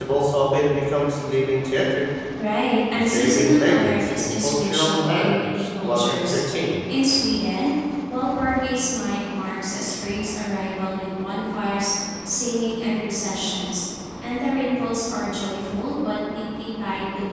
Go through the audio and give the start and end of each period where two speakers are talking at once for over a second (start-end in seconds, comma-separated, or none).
2.9-6.4